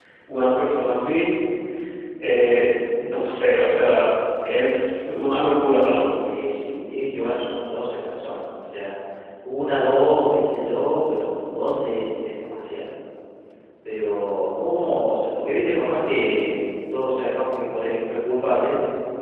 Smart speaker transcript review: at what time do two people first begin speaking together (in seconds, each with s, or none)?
none